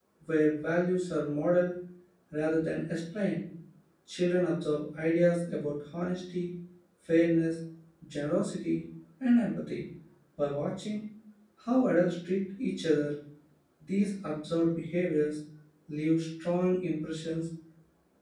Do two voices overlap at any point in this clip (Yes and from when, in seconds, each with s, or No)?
No